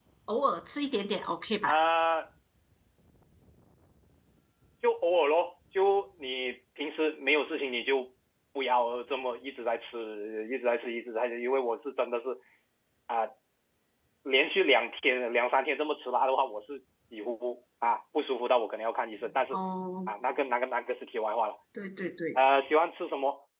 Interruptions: none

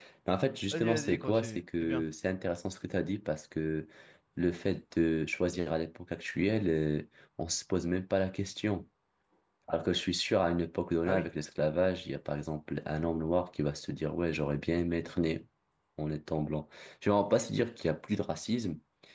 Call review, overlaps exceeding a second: present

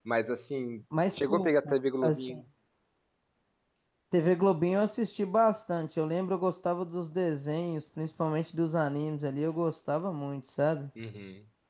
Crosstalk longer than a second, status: present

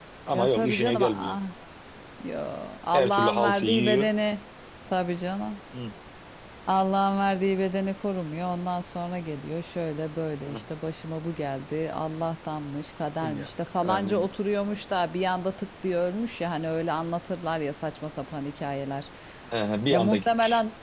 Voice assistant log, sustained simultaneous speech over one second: present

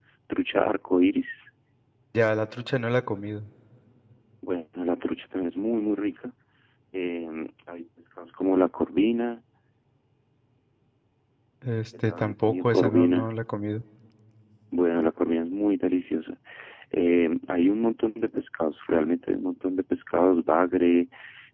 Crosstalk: present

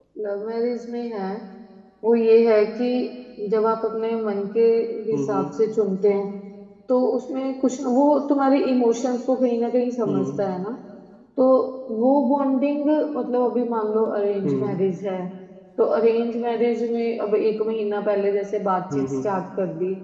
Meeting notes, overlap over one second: none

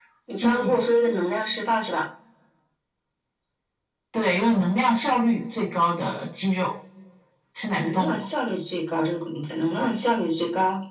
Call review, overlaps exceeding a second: none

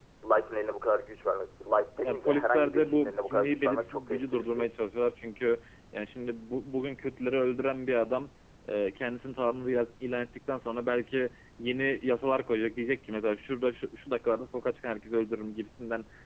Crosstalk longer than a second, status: present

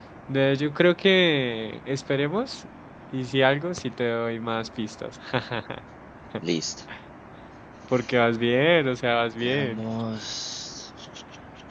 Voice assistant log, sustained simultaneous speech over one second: none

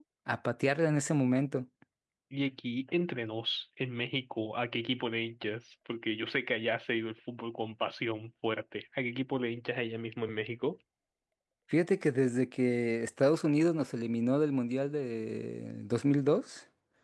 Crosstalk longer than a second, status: none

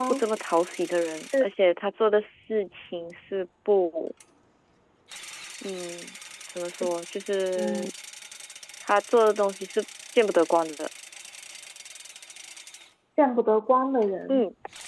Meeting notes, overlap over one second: none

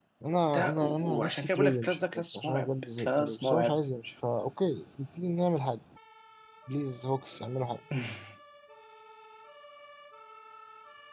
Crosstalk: present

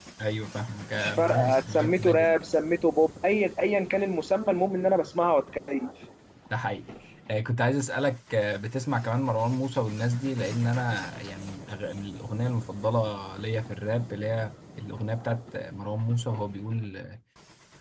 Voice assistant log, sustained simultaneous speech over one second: present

